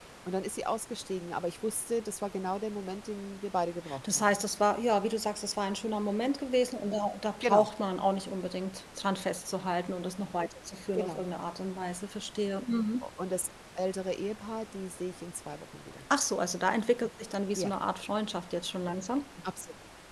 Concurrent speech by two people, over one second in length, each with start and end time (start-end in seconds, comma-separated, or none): none